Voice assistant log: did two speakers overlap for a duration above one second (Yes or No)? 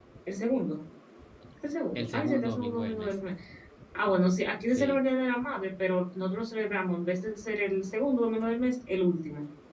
Yes